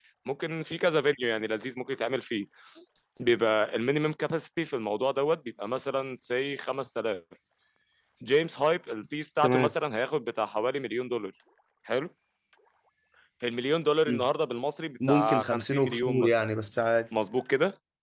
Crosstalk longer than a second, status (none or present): present